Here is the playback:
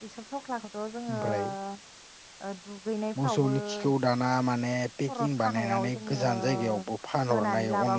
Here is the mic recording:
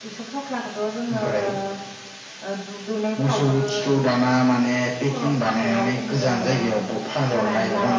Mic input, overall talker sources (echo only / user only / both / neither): echo only